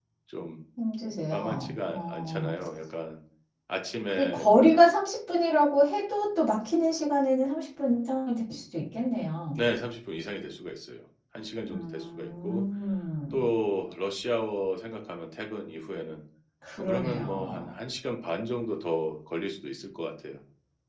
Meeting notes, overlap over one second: present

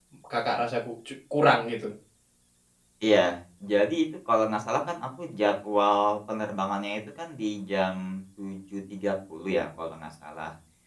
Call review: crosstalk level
none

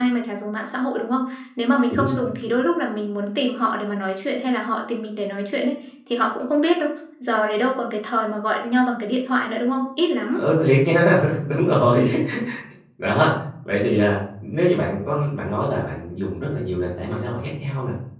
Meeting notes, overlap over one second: none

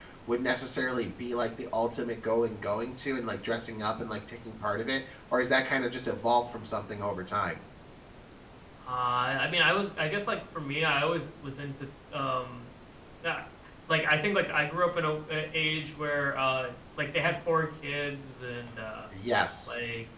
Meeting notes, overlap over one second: none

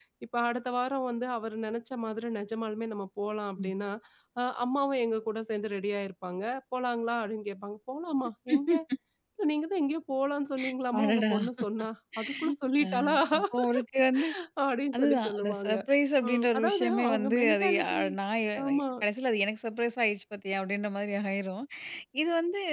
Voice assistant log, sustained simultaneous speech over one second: present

